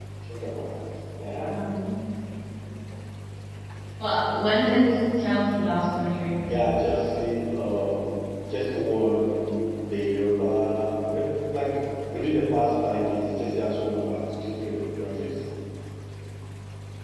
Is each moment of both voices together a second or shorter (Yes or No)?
Yes